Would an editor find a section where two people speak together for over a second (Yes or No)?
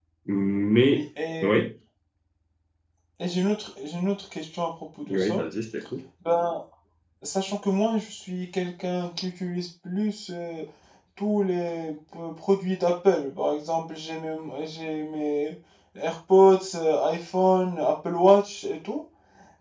No